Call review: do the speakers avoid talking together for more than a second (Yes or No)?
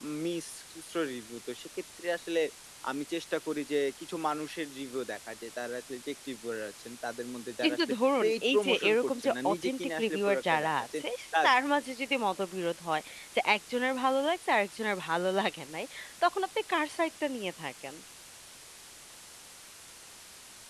No